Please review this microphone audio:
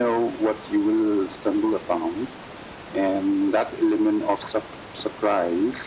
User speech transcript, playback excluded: none

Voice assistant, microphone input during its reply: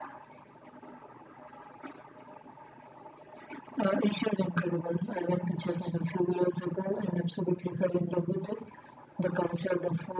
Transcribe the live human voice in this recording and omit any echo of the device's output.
none

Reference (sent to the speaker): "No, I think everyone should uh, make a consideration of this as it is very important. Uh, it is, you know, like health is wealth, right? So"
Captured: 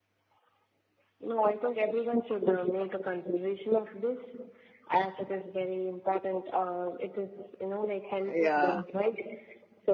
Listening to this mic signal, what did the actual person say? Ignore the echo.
Yeah.

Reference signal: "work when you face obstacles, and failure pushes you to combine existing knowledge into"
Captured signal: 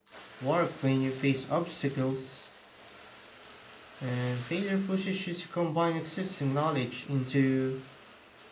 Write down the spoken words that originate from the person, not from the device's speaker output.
none

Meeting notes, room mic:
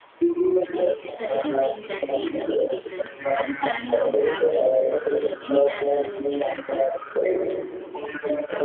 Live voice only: It's the little thing that makes a big difference. Are you planning on traveling to Italy anytime soon to practice?

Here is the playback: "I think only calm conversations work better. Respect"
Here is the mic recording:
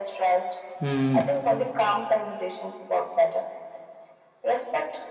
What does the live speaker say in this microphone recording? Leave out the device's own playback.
Mm,

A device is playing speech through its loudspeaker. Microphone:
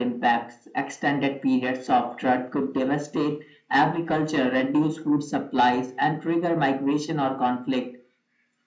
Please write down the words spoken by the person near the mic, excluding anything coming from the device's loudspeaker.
none

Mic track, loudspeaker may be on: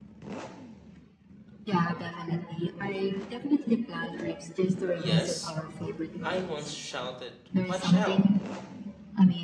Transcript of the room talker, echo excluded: Yes, I once shouted, Watch out!

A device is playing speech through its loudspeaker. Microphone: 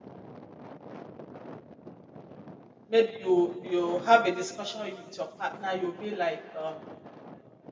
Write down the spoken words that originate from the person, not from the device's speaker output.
maybe you you have a discussion with your partner, you'll be like, um,

